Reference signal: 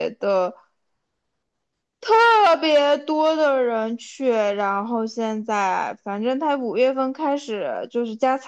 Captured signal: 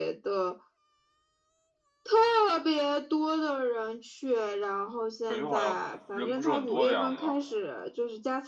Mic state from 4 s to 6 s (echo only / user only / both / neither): both